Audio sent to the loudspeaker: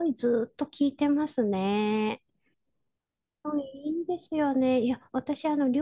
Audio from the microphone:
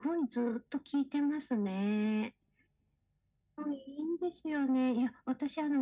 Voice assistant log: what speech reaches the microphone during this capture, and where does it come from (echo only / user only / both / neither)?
echo only